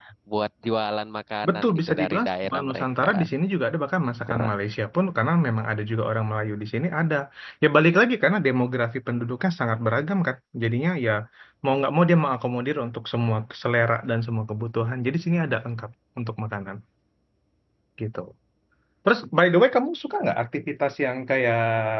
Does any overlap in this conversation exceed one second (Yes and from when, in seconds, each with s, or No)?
Yes, from 1.5 s